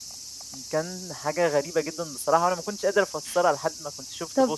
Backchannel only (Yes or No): No